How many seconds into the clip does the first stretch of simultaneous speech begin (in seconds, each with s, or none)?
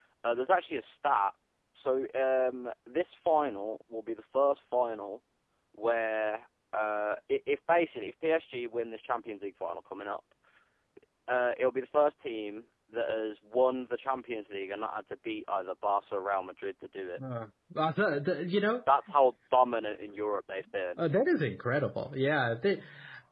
none